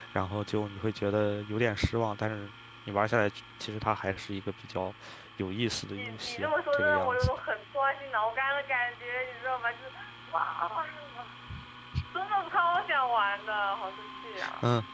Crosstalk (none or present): present